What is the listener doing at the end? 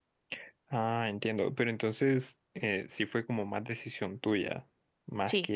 listening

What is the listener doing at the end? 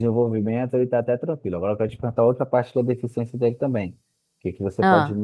listening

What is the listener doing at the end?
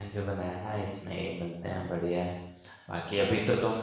listening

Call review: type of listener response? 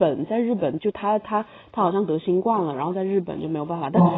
listening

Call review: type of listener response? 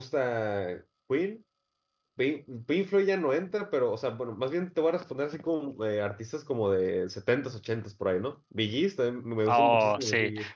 taking over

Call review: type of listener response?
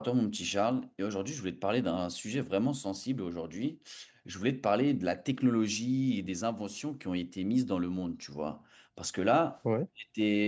listening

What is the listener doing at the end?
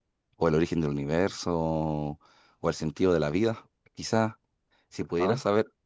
listening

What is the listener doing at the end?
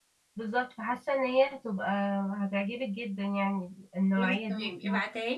taking over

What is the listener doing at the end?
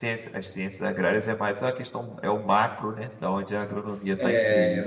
taking over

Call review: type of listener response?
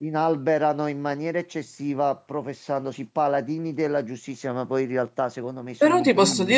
taking over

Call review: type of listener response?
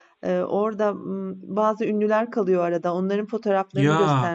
listening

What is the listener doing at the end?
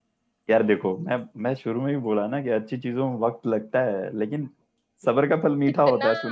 taking over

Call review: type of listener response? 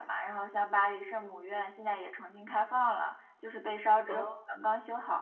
listening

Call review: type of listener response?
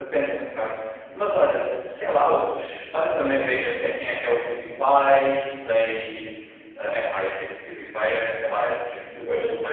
listening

